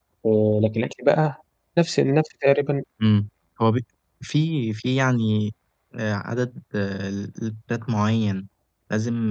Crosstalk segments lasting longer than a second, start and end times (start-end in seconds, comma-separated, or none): none